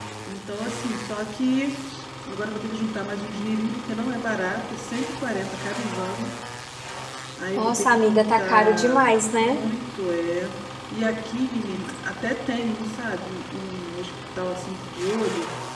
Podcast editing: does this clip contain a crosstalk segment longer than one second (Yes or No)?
Yes